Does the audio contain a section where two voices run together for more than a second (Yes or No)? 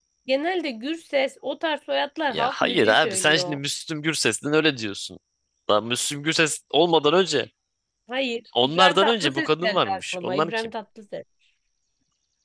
Yes